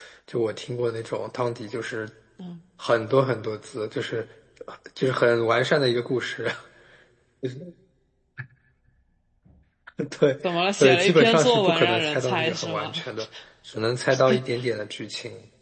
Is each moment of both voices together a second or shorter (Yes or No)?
No